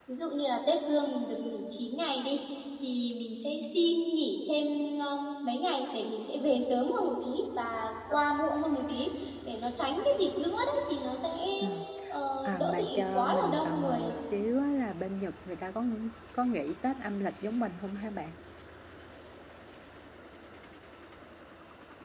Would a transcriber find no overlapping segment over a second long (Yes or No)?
No